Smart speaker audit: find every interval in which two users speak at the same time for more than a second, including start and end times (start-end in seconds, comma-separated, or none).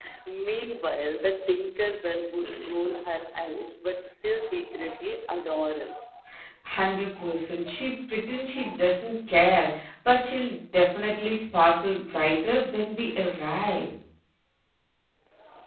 none